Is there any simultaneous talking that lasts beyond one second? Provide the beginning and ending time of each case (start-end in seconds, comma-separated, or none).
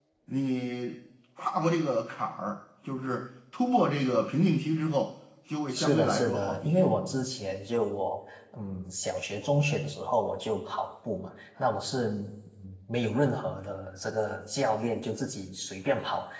5.7-7.0